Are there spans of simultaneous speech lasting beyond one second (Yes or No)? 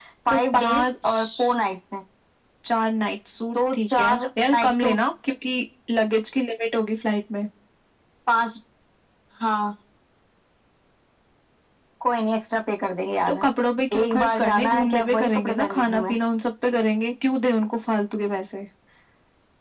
Yes